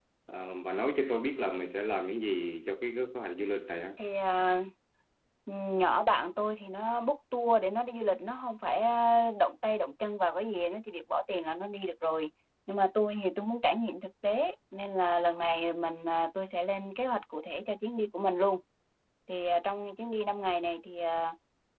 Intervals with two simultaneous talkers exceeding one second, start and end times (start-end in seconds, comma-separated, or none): none